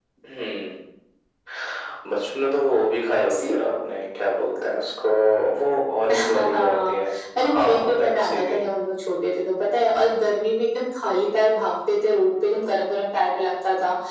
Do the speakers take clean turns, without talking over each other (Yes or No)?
No